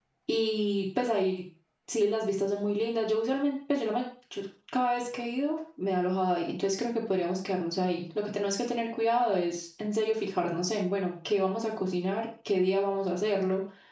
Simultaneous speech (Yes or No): No